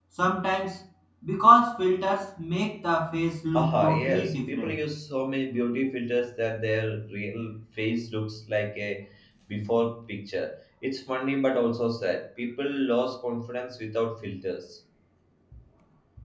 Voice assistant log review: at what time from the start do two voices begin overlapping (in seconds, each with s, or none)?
3.6 s